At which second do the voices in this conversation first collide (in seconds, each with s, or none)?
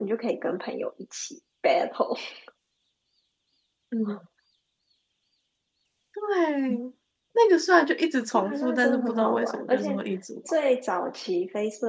8.3 s